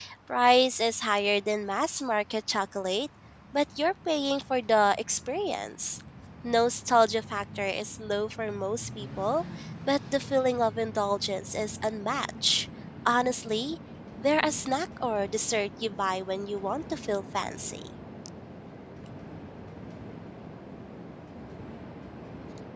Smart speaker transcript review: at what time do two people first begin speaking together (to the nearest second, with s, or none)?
none